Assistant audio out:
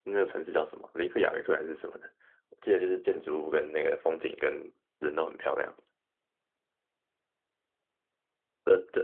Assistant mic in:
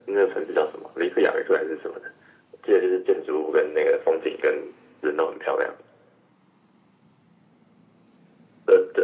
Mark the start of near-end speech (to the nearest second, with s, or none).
none